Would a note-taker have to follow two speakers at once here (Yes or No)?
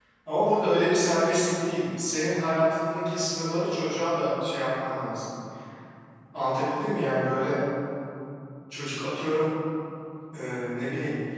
No